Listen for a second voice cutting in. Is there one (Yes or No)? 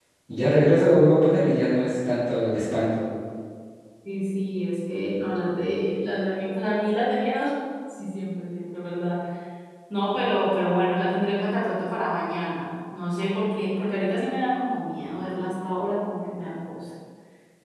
No